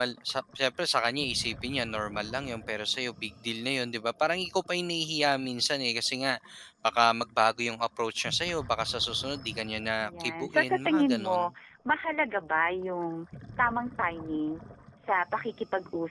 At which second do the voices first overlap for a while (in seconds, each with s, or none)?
10.0 s